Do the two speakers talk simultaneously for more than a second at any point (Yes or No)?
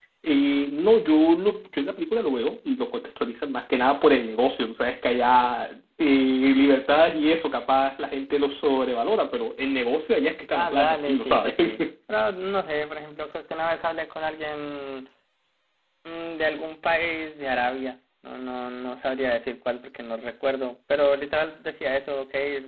Yes